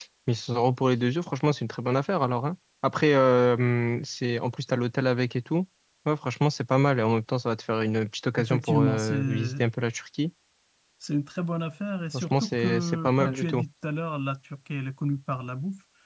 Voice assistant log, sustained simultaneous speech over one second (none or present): present